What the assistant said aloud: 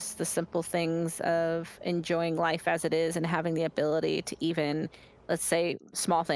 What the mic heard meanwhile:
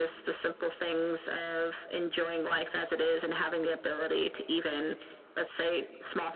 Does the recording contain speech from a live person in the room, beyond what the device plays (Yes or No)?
No